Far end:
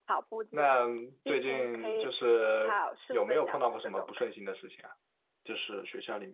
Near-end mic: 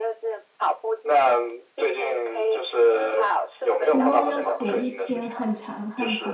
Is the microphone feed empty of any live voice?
No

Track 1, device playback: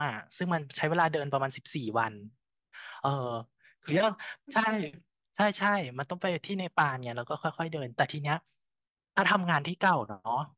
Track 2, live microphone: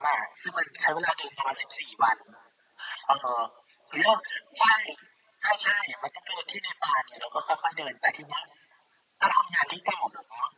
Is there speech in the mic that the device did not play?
No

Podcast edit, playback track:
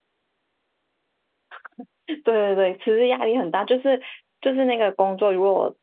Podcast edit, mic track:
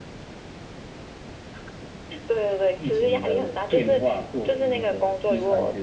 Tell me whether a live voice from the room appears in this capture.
Yes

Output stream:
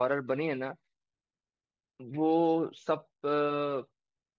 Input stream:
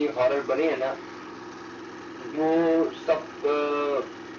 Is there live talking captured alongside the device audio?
No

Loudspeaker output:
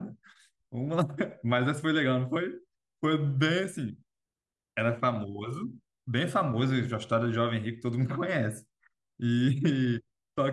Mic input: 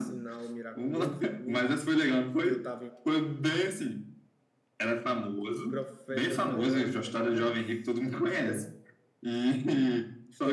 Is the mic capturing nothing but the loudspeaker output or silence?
No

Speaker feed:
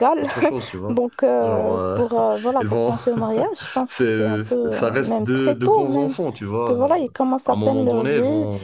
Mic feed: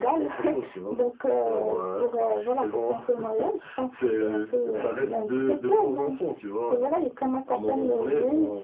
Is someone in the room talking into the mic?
No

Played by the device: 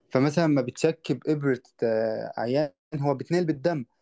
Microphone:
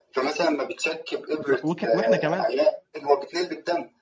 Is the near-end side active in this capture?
Yes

